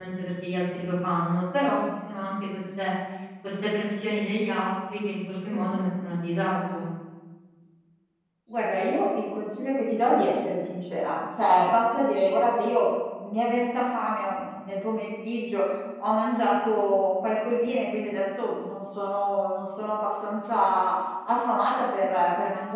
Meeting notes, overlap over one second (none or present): none